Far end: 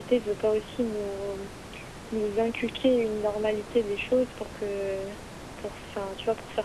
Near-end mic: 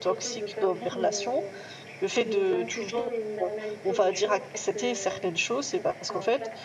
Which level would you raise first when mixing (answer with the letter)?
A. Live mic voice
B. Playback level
B